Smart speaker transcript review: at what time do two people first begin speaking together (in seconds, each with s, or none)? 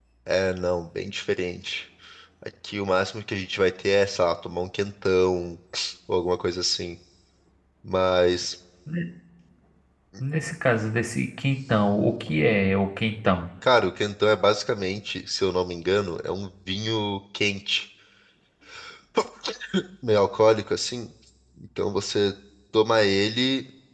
none